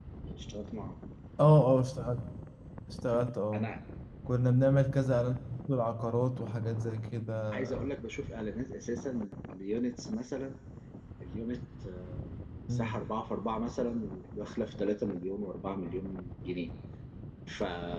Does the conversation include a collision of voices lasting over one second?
No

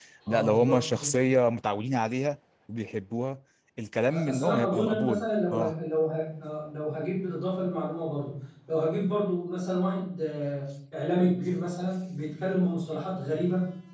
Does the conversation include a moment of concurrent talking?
Yes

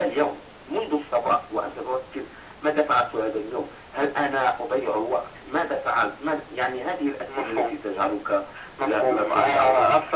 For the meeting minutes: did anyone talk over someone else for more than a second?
Yes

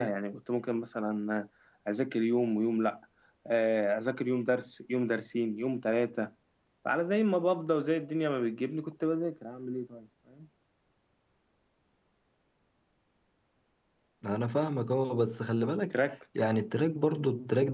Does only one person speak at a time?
Yes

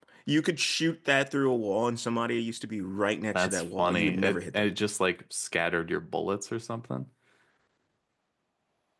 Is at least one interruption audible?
Yes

